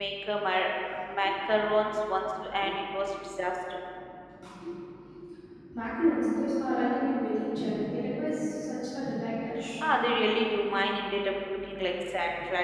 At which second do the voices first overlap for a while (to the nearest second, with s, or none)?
none